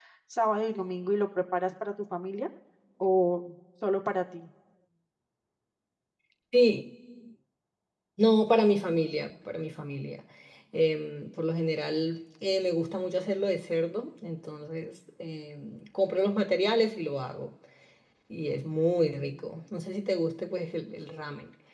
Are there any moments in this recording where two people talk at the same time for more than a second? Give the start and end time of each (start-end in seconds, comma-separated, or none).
none